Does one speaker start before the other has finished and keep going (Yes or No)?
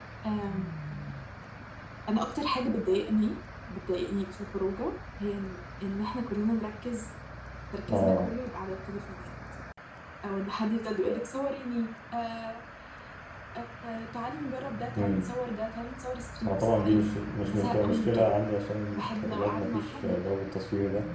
Yes